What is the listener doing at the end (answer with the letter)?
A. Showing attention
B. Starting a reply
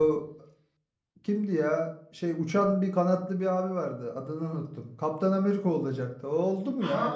B